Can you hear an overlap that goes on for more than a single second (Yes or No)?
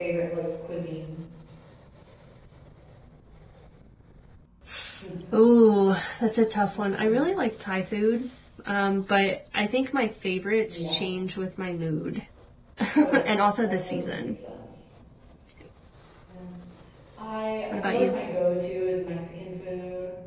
Yes